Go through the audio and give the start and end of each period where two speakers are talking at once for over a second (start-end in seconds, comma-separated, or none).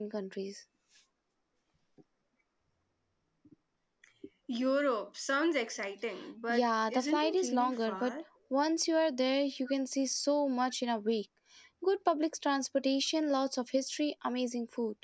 6.5-8.1